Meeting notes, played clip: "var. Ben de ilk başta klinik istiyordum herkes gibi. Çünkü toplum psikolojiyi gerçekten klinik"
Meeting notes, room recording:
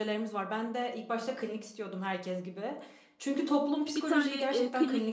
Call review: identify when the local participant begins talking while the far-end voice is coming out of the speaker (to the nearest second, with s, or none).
4 s